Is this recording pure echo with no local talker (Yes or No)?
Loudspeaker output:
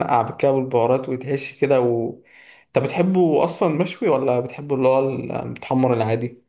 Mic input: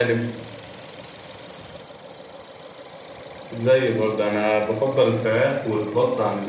No